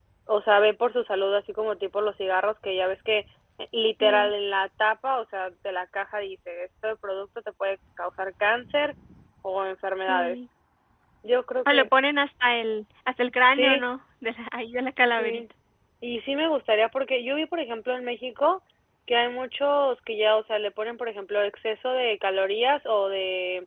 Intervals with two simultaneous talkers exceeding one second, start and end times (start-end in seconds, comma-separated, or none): none